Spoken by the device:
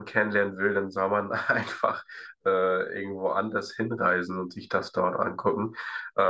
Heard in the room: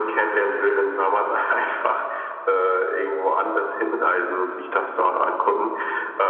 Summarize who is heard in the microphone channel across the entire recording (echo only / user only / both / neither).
echo only